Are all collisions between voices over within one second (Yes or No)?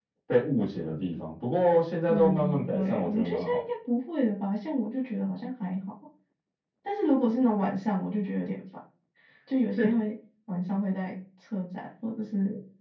No